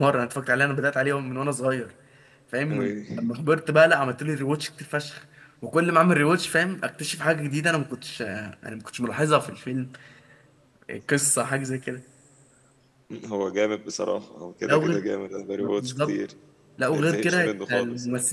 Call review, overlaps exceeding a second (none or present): present